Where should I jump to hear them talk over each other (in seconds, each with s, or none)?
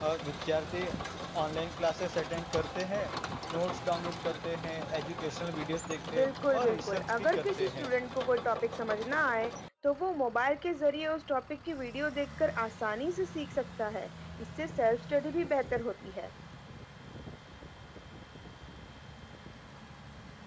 6.1 s